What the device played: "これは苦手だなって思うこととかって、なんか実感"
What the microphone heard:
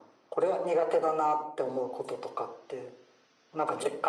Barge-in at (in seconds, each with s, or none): none